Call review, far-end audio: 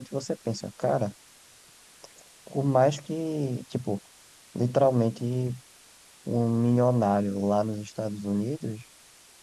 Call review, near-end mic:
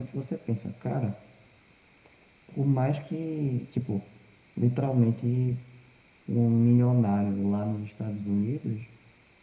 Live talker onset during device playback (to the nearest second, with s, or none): none